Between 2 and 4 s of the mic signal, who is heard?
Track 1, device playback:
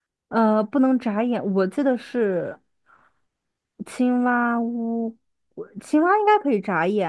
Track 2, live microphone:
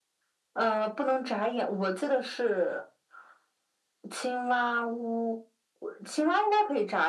echo only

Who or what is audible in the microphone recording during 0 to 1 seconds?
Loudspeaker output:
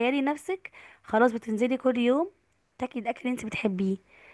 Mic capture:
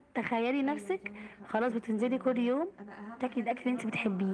both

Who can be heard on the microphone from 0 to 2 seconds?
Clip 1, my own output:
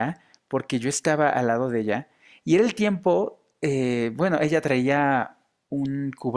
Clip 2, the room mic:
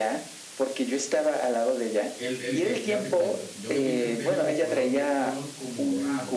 echo only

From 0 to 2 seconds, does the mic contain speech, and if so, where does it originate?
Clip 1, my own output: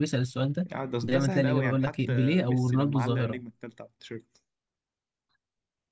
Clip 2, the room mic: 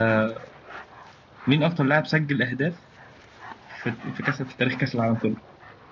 user only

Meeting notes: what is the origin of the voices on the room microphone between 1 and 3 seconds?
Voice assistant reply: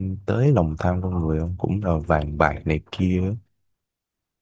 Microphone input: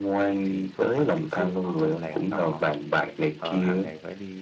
both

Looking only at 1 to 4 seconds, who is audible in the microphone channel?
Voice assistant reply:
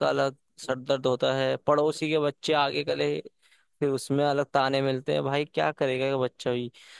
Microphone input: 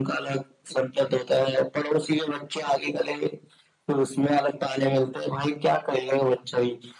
echo only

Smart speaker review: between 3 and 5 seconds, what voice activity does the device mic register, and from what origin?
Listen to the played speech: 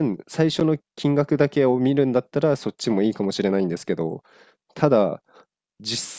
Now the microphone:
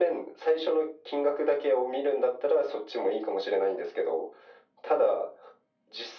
echo only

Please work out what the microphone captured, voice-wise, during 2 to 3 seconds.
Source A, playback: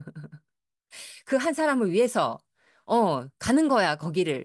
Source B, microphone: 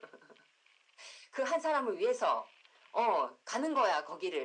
echo only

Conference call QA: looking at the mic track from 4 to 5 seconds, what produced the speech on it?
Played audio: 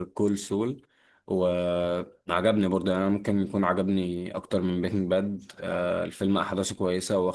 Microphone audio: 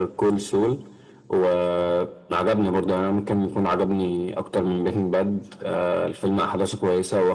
echo only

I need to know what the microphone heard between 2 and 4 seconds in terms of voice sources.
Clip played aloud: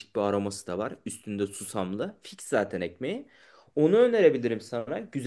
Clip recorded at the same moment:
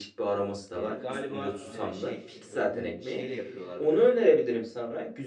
both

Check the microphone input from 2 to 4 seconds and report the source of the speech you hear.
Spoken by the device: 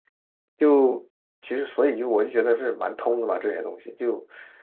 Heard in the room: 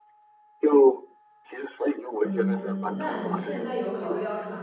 both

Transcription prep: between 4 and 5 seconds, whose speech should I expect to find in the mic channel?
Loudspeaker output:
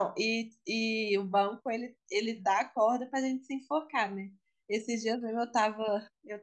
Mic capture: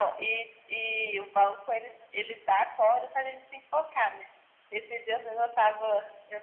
echo only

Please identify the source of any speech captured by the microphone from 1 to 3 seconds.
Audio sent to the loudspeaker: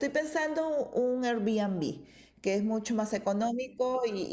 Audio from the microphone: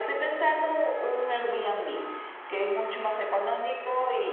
echo only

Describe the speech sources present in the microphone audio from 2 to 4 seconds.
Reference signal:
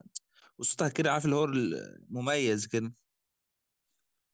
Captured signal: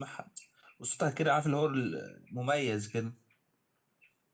echo only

